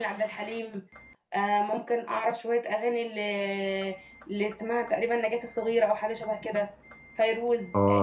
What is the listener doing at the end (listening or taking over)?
taking over